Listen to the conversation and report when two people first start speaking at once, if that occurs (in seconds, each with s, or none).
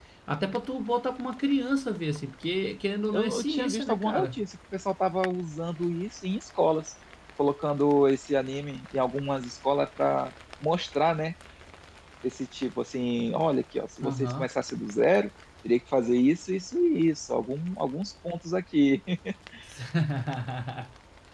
3.1 s